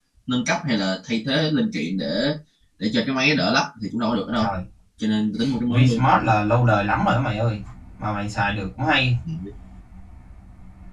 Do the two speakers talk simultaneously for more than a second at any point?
No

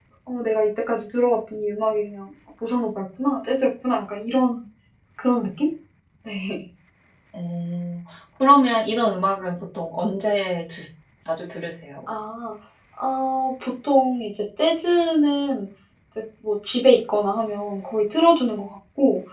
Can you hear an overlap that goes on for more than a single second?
No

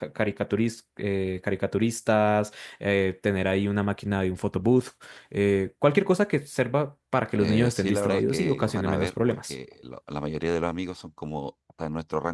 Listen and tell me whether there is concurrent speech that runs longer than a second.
Yes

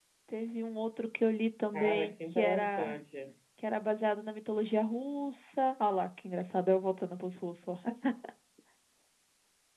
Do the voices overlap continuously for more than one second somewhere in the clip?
Yes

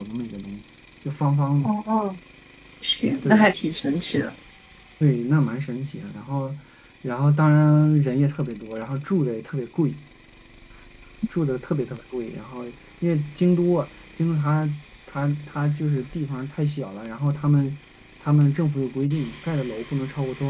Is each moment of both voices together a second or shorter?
Yes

